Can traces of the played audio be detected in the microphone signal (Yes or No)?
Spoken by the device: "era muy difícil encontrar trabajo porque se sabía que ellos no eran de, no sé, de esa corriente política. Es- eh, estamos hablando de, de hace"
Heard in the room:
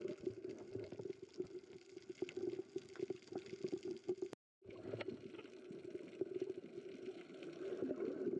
No